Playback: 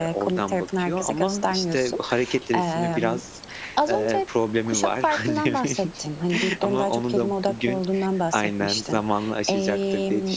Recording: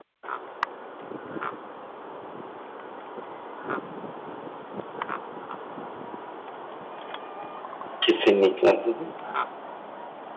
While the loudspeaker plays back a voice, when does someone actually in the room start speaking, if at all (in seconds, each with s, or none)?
8.0 s